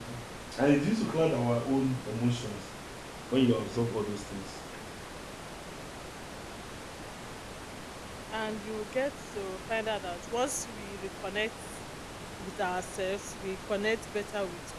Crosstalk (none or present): none